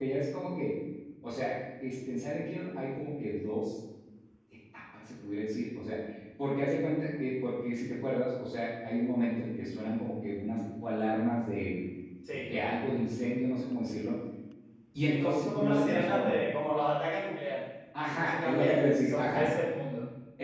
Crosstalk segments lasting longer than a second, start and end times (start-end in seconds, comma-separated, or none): 15.1-16.4, 18.1-19.5